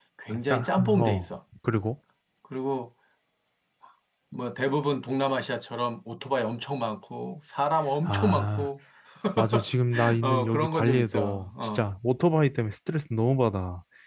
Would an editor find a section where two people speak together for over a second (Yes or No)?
Yes